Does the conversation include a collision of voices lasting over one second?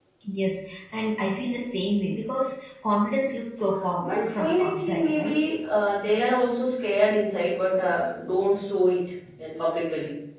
Yes, from 4.0 s

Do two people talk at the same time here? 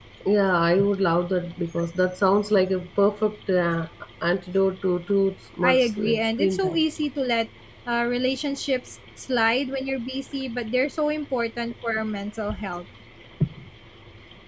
Yes, from 5.6 s

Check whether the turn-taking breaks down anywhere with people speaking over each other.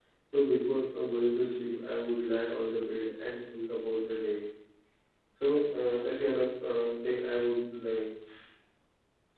No

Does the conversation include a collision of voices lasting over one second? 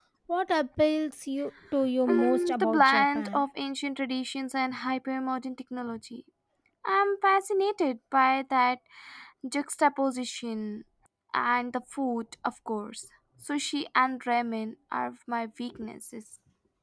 Yes, from 2.1 s

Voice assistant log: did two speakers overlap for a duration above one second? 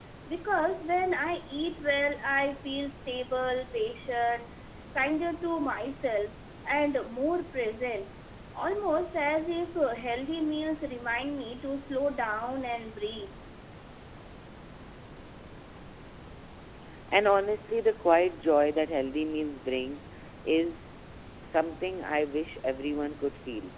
No

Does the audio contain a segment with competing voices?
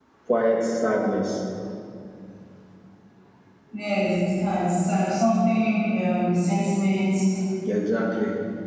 No

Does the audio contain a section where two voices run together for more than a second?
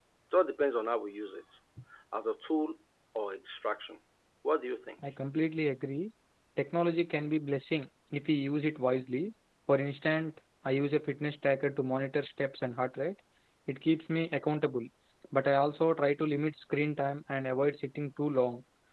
No

